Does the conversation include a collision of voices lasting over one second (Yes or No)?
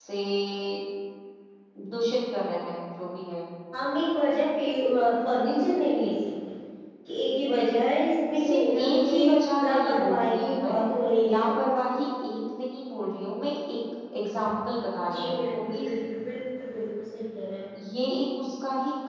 Yes